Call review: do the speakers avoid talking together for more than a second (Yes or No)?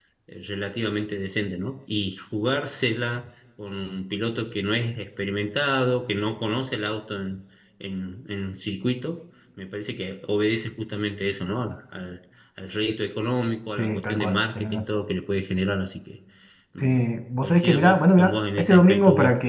No